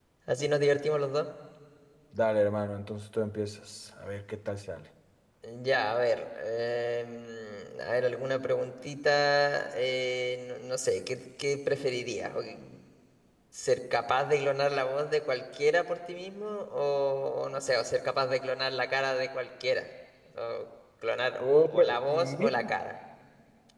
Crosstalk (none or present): present